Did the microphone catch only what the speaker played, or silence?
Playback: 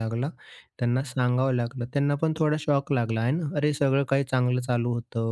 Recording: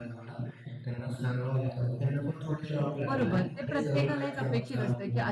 No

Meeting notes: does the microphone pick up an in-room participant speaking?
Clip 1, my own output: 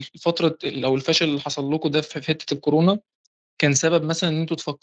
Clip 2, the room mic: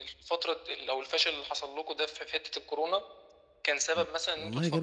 Yes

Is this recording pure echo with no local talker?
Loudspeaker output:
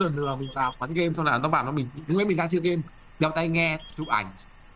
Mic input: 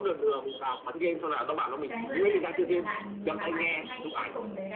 No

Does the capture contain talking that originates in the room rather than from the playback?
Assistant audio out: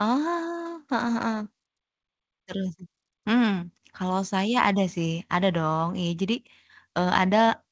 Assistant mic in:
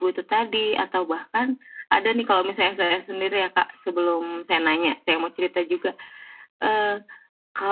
Yes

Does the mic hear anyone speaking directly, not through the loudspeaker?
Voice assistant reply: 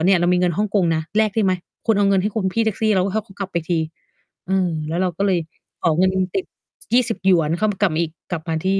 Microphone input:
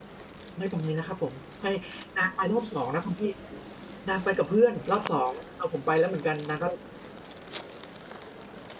Yes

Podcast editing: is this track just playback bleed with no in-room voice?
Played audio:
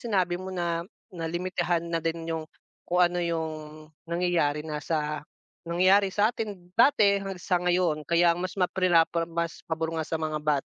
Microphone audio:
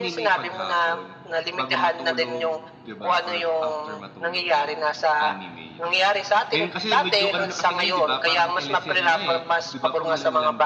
No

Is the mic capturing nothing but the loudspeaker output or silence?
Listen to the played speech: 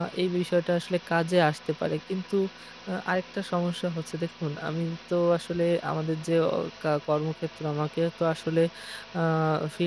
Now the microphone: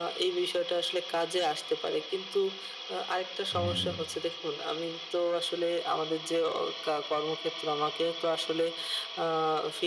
No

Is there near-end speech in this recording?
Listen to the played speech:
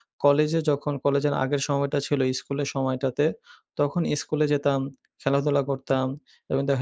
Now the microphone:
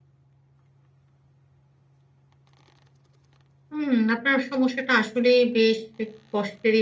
Yes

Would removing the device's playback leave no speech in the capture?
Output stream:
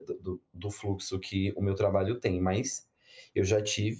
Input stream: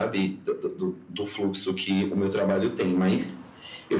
Yes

